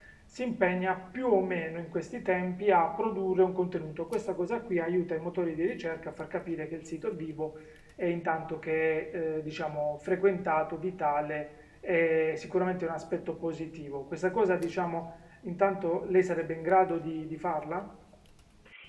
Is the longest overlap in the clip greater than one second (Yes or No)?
No